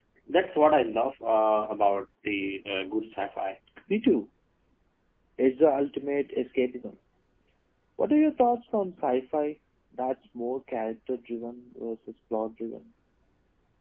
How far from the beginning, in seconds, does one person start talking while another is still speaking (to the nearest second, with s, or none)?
none